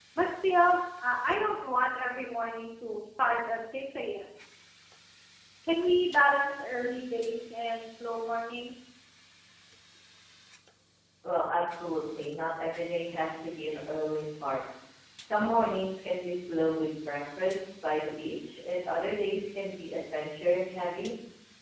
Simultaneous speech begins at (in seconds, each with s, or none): none